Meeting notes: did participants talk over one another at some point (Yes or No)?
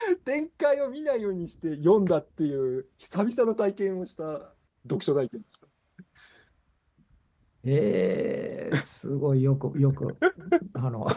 No